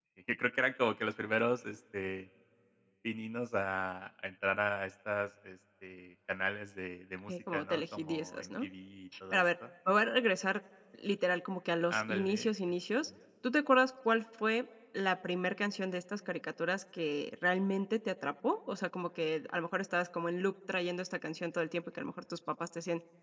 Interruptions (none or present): present